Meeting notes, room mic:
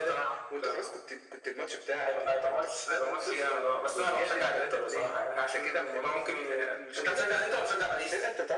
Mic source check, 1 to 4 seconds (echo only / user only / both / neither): echo only